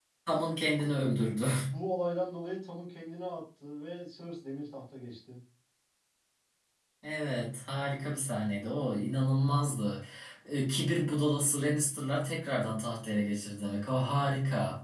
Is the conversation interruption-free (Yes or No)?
Yes